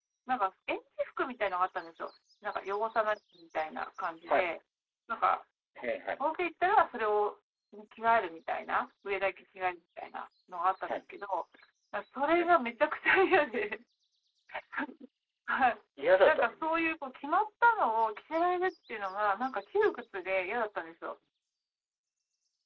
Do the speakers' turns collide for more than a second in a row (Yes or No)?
No